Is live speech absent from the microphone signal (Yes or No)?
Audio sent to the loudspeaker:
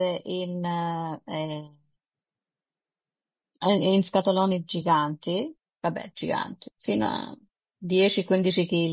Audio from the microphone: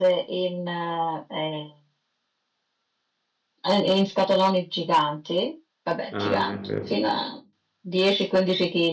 No